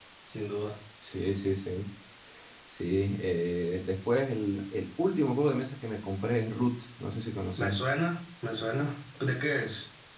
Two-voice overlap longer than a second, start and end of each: none

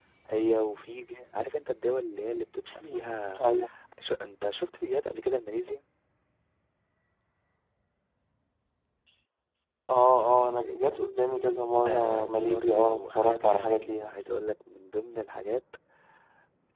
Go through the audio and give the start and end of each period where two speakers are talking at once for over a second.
11.8-14.1

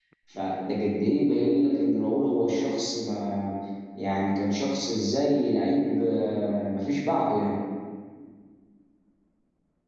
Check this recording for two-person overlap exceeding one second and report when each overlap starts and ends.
none

